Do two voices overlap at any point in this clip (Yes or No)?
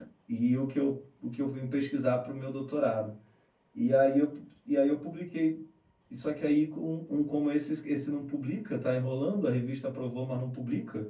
No